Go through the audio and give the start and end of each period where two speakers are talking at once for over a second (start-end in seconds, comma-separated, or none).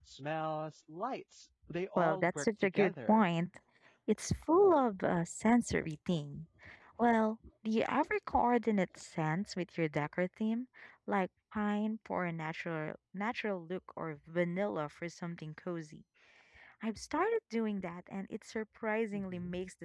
2.0-3.2